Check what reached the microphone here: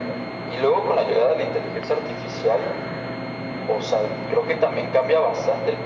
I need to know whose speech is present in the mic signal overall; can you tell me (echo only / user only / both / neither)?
echo only